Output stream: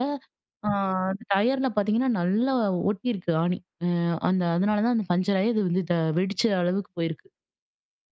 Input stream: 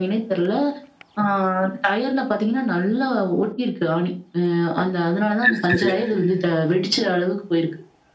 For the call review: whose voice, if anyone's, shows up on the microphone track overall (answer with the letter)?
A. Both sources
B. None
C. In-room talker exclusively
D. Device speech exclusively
A